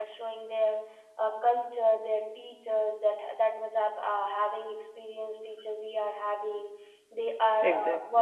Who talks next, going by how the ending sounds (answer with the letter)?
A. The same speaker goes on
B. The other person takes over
A